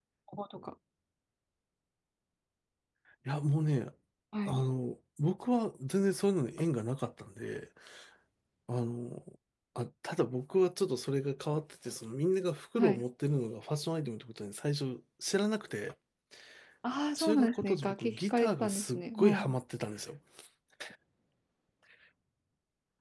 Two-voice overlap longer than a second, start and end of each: 17.2-19.6

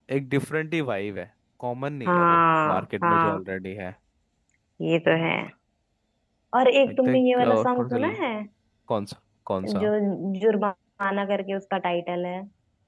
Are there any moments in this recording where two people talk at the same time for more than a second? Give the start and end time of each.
2.1-3.4, 6.9-8.2

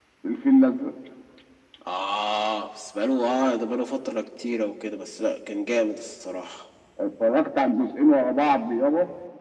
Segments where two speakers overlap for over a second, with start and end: none

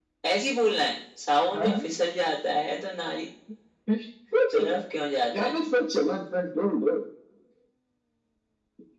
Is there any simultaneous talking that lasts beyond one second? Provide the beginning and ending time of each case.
none

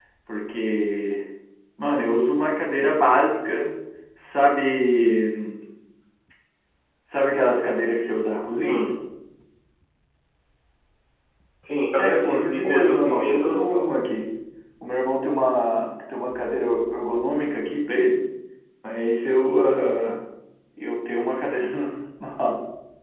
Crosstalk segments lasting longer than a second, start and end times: 12.0-13.9

